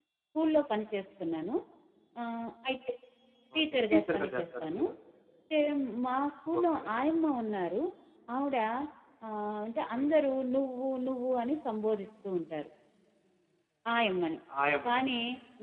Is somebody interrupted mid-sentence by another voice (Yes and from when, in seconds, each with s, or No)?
Yes, from 3.6 s